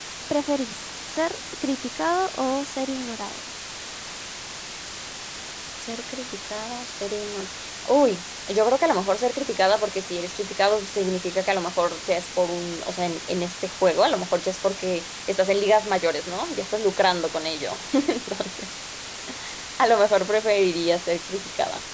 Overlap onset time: none

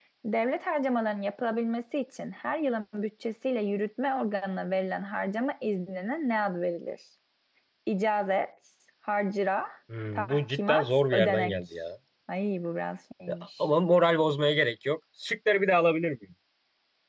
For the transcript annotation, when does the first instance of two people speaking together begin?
10.2 s

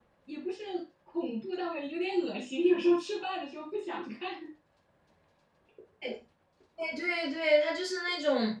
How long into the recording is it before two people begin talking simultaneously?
none

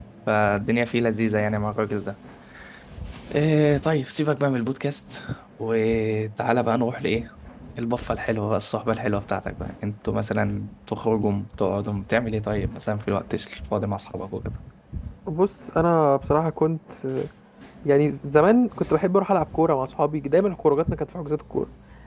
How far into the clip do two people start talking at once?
none

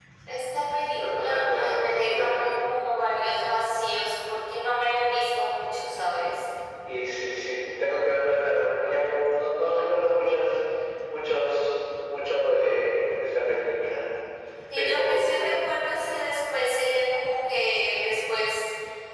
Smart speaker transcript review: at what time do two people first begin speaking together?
0.9 s

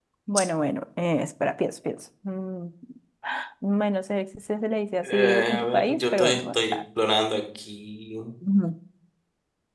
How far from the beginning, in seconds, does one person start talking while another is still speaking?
5.0 s

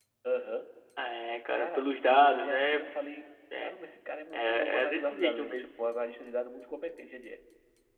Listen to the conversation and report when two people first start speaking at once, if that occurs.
1.6 s

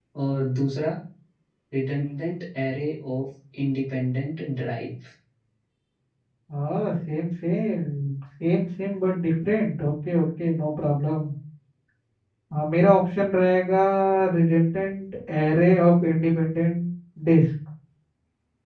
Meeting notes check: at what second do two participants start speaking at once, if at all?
none

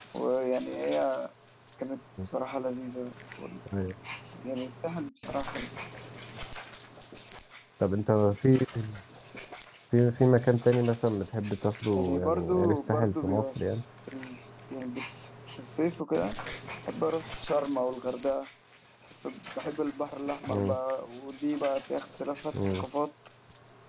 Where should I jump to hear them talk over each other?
12.0 s

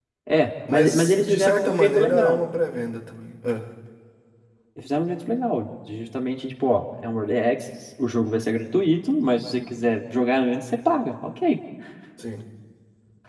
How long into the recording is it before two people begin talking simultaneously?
0.7 s

